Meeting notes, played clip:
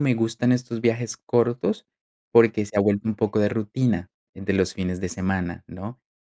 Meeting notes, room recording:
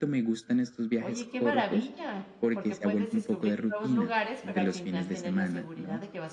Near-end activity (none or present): present